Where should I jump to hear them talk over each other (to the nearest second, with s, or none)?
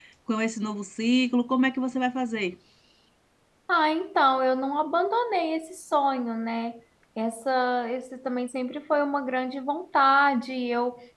none